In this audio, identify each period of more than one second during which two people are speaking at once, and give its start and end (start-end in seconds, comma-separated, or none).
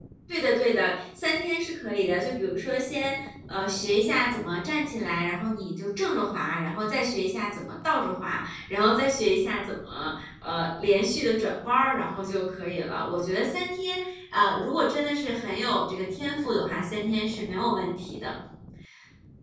none